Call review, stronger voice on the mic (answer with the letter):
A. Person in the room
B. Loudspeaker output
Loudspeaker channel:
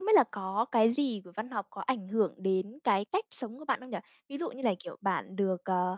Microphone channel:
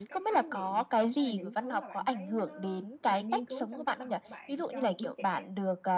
B